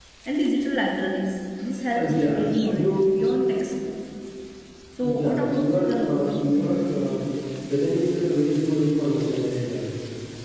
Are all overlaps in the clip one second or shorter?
No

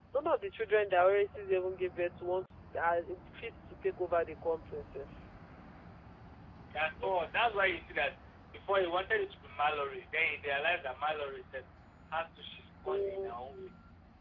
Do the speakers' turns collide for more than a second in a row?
No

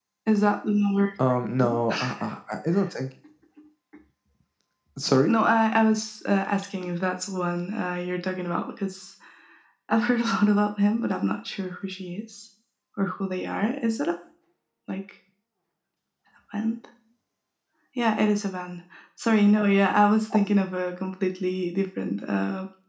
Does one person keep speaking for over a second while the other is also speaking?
No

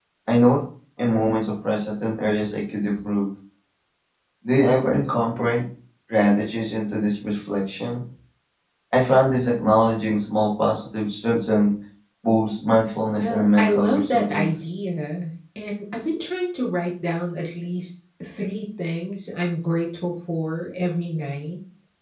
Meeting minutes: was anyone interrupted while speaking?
Yes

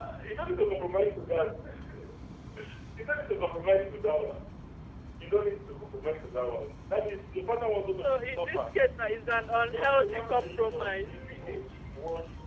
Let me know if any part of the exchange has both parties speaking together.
Yes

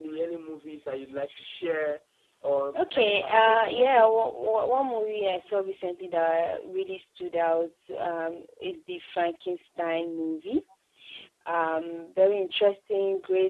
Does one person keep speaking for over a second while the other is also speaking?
Yes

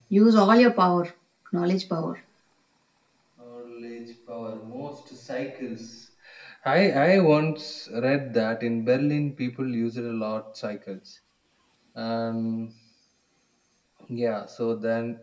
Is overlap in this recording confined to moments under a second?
Yes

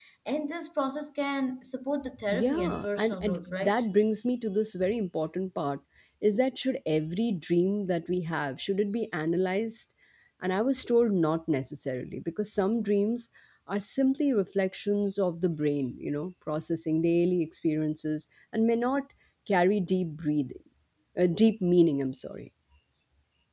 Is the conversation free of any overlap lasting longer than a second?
No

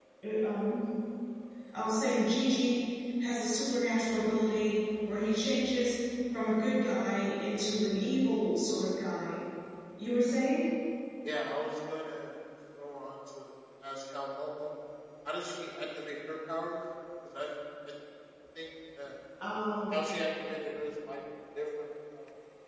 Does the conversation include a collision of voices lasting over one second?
No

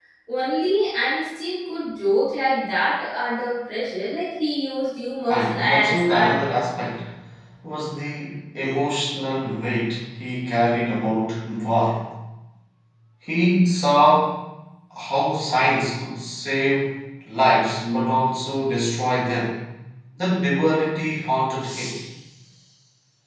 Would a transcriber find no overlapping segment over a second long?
No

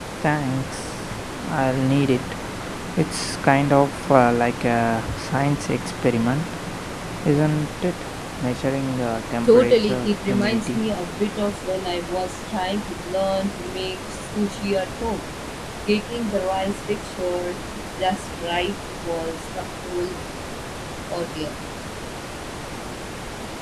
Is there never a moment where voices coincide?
No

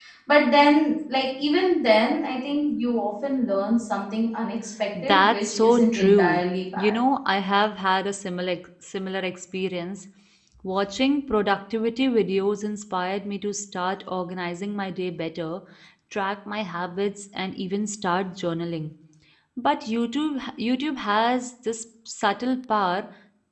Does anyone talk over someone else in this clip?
Yes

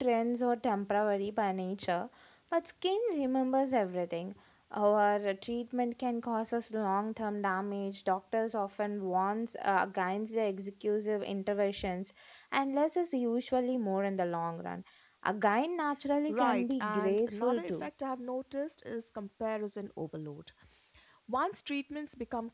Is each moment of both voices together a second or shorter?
No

